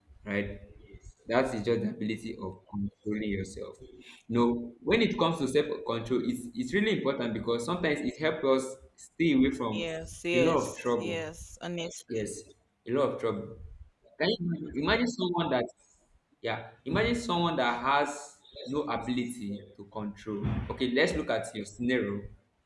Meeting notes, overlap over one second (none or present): none